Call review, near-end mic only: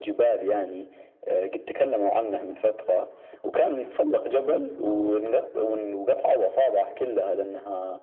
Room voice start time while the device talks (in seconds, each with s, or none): none